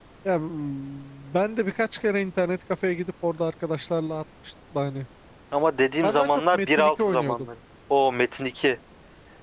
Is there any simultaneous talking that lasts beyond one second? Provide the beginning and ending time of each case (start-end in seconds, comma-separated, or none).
6.0-7.4